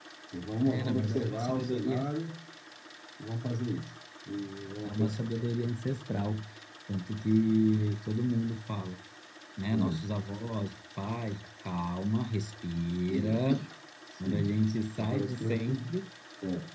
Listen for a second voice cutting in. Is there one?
Yes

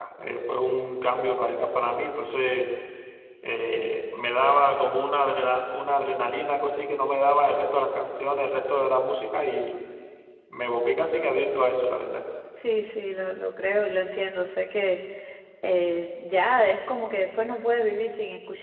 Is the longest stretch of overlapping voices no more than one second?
Yes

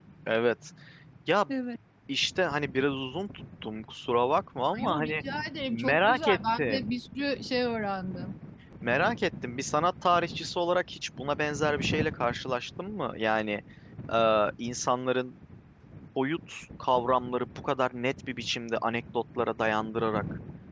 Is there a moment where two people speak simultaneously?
Yes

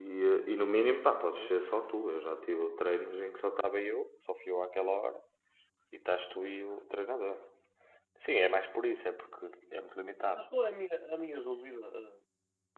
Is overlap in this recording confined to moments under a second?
Yes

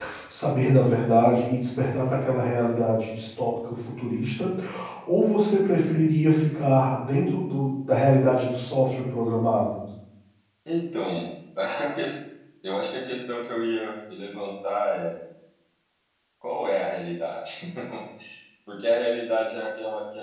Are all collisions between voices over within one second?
Yes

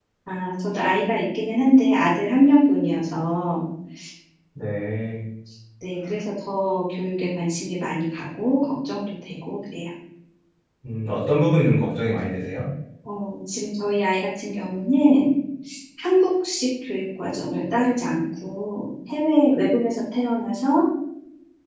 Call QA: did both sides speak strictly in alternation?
Yes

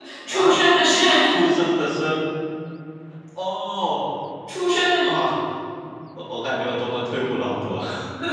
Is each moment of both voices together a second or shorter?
Yes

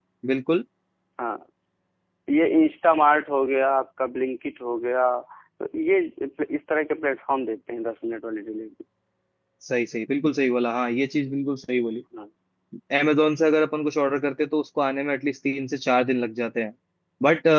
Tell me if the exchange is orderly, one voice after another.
Yes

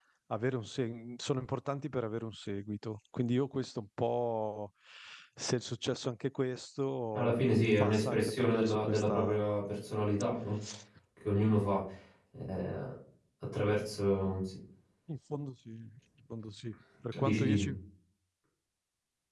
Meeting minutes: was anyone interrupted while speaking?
Yes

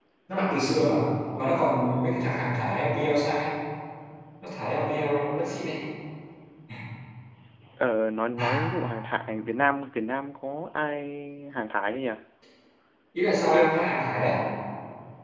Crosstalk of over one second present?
No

